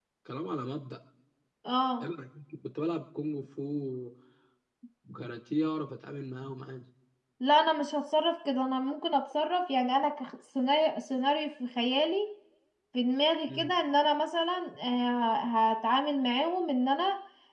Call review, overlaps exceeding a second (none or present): none